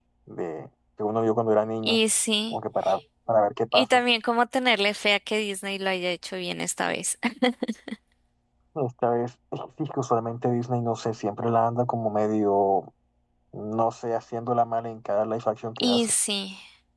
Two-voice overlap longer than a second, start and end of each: none

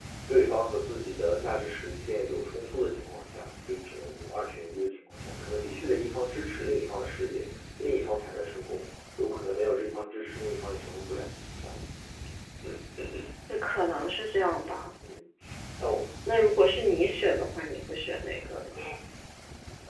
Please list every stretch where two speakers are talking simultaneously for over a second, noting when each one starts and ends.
none

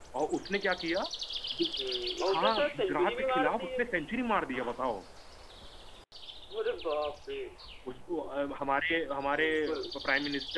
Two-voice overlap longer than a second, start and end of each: 2.3-4.0

